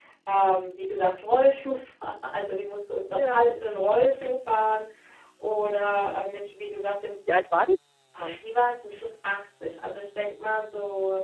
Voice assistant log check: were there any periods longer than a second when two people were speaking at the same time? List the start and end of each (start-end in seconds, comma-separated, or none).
none